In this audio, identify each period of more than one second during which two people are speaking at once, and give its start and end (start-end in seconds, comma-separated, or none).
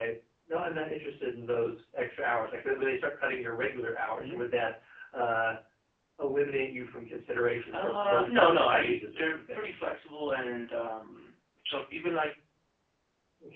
7.7-9.8